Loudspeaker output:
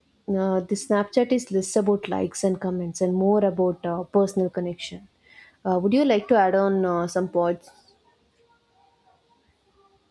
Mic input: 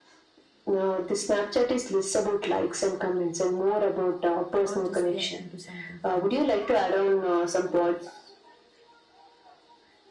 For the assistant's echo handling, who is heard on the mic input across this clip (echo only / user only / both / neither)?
both